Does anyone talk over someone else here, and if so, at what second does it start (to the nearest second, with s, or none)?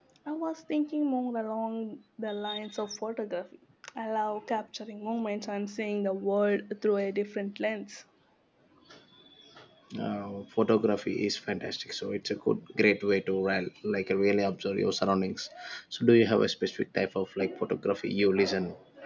none